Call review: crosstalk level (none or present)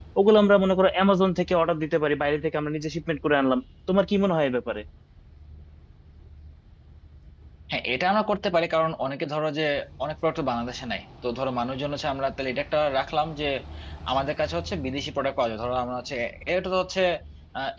none